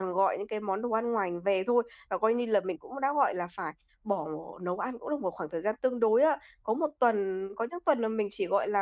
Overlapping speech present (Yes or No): No